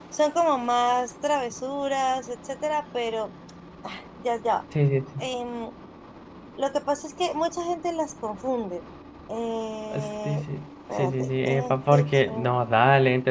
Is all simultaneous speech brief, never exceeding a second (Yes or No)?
No